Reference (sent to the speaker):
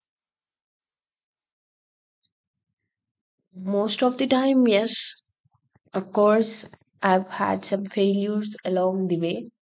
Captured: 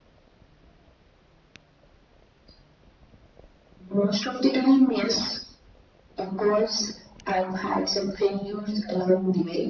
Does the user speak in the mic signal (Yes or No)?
No